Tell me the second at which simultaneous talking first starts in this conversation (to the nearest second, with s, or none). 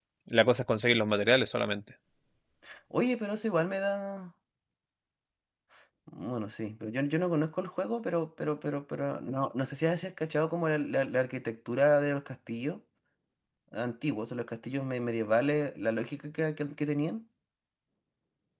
none